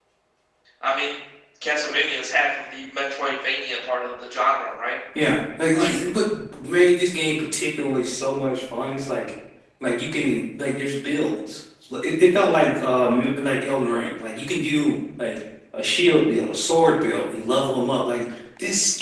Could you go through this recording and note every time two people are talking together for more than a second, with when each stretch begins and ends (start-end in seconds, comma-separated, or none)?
none